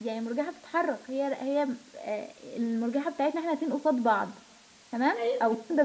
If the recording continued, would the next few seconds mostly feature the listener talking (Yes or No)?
No